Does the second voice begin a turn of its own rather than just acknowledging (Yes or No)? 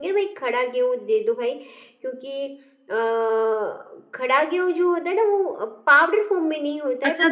Yes